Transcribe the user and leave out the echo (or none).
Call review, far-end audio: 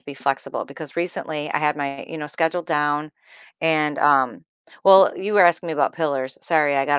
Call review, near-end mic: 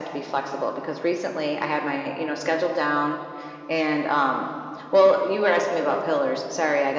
none